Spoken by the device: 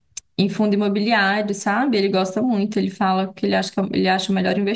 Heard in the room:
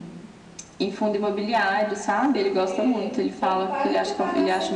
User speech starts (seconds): 2 s

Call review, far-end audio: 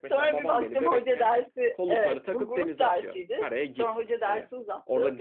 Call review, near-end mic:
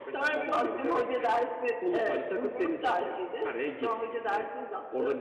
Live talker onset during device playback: none

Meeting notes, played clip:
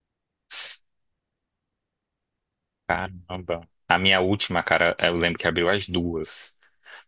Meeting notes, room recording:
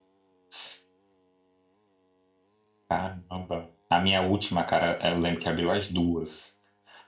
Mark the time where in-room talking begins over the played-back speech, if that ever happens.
none

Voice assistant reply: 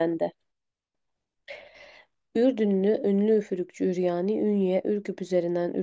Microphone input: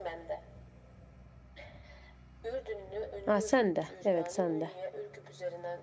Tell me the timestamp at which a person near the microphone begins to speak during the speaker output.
3 s

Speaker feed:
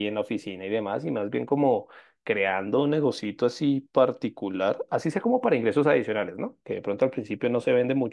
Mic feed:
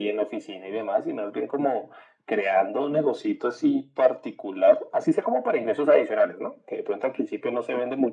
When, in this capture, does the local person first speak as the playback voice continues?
none

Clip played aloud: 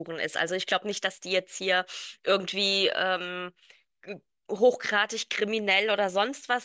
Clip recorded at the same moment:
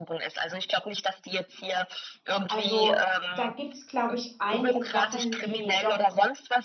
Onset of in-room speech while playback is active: 2 s

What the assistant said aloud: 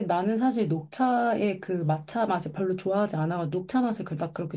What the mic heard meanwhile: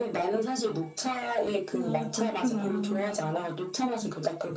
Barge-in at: 2 s

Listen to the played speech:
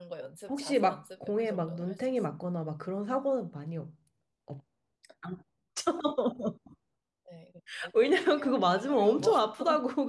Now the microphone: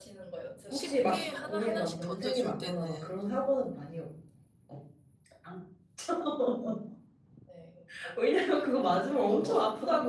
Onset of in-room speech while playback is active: 1 s

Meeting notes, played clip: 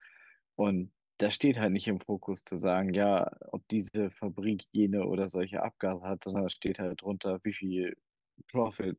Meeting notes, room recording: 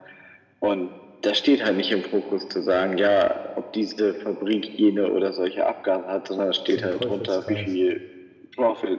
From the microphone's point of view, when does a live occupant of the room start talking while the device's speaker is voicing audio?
7 s

